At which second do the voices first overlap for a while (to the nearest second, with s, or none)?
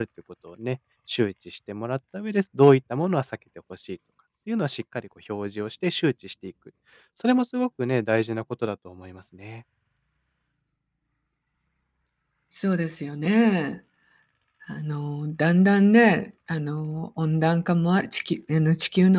none